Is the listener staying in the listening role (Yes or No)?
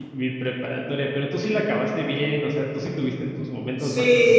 No